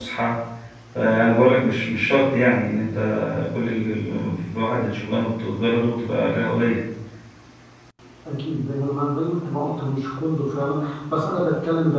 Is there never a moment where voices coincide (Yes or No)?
Yes